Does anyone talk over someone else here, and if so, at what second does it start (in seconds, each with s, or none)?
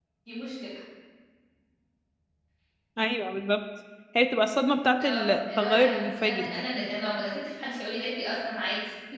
5.0 s